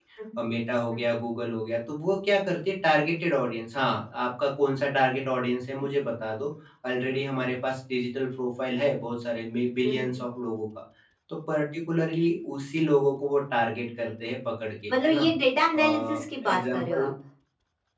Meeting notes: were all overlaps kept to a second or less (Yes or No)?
No